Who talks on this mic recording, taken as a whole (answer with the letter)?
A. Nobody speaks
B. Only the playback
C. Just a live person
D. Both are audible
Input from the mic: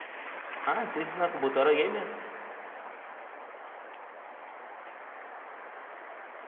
C